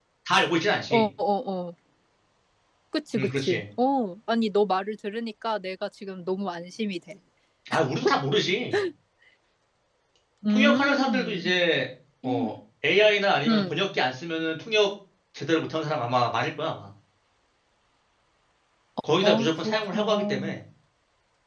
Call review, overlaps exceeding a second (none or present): present